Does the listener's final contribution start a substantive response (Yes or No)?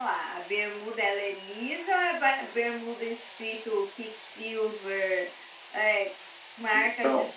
Yes